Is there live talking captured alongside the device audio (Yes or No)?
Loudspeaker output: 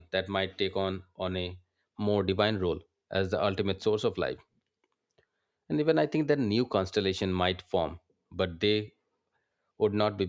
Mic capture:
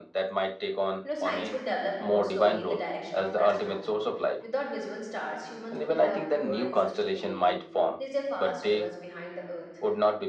Yes